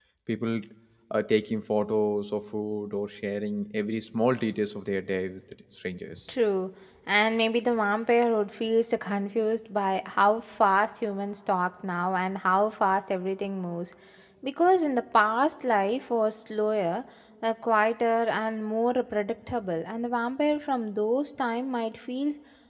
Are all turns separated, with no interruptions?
Yes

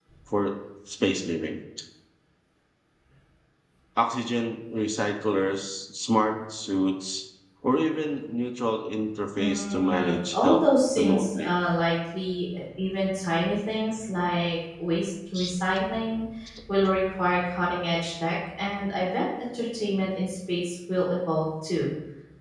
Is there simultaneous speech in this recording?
Yes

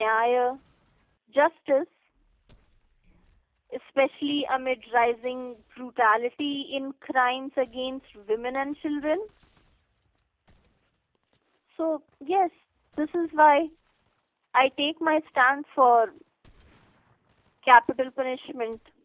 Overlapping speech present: No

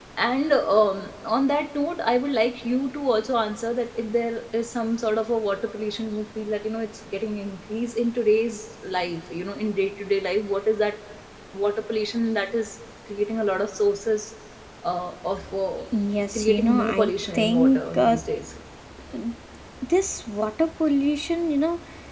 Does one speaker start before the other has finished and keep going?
Yes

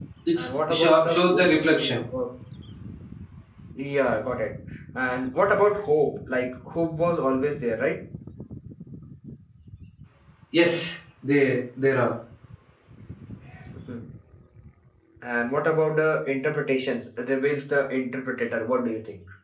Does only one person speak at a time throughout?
No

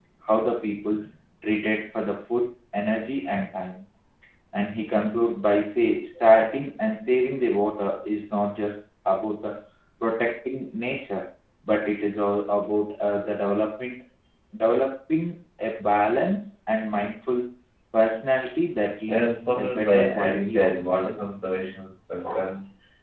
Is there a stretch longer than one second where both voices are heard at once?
Yes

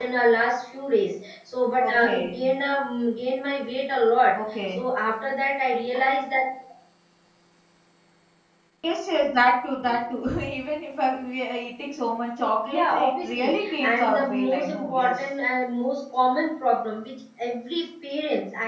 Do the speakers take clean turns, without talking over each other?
No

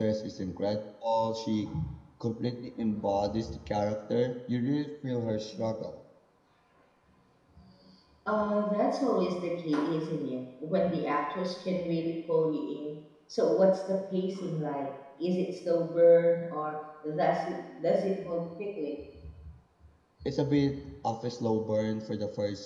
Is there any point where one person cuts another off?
No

